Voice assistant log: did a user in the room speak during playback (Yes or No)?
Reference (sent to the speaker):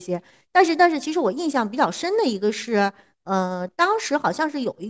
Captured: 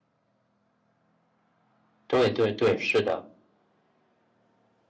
Yes